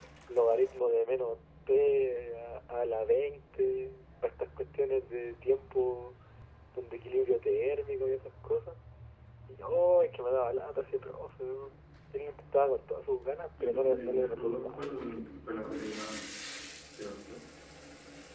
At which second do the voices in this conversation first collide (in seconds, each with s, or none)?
13.6 s